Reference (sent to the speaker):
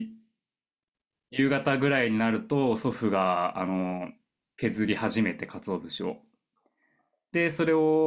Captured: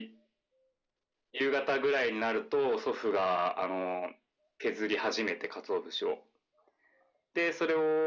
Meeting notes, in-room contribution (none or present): none